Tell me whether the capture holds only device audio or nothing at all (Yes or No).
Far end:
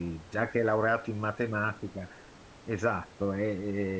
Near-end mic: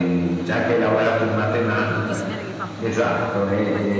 No